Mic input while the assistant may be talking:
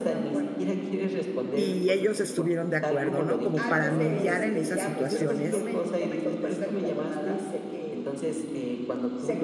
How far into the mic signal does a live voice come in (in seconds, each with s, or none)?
1.5 s